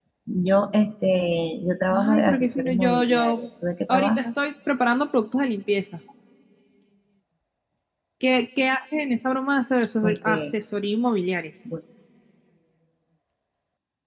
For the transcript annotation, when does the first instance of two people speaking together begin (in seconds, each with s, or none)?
1.9 s